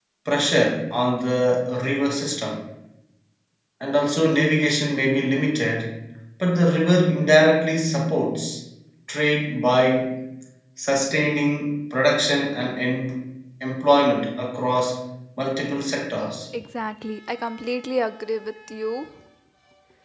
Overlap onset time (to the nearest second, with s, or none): none